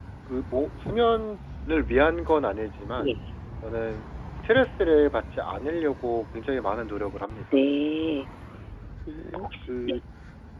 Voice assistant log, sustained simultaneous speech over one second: none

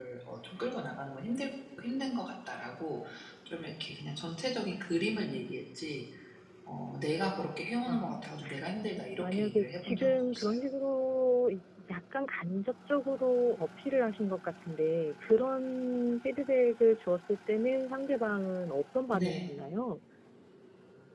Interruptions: present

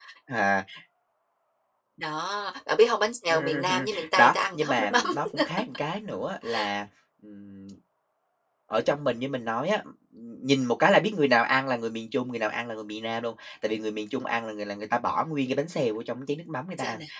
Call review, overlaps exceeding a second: present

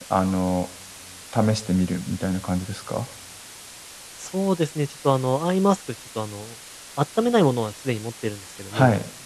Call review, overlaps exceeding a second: none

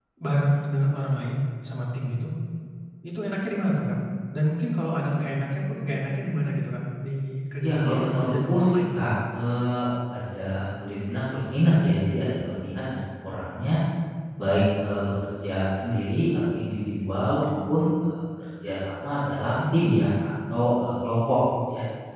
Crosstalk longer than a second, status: present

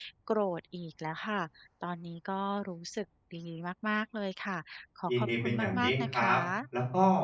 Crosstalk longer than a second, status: present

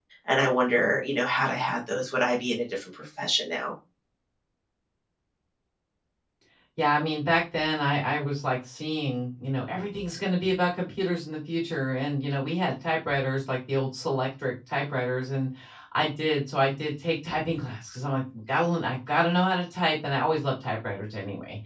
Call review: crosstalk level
none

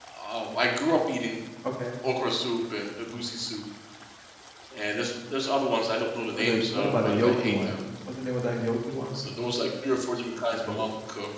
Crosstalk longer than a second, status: present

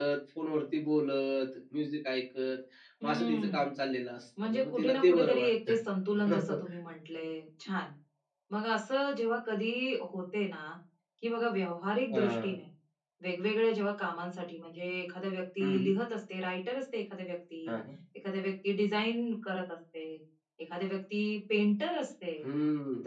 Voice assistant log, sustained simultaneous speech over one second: present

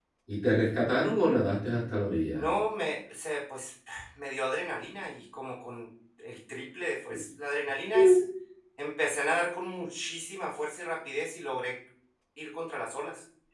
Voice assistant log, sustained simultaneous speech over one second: none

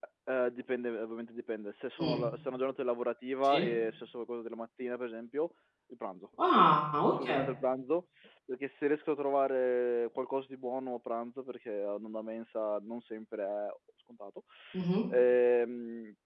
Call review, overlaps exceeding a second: none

